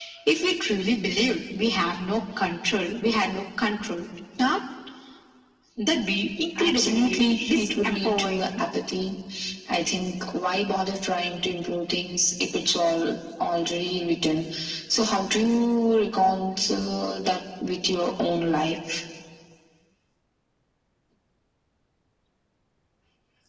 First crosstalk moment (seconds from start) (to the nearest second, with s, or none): 7 s